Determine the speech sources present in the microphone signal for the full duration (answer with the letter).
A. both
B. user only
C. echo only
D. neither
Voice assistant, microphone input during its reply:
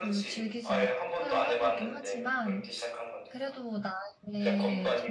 A